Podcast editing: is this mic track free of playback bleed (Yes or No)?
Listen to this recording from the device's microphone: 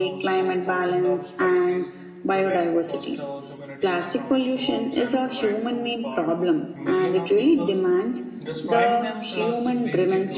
No